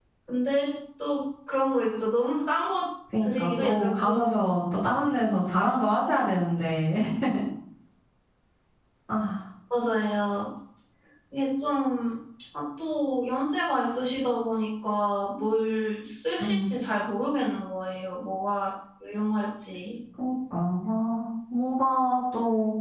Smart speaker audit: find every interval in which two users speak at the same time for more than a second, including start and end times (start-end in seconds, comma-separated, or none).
3.2-4.6